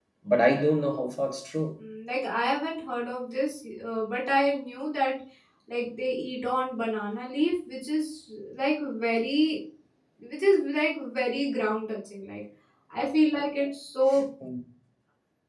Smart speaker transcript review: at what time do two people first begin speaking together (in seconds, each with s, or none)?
none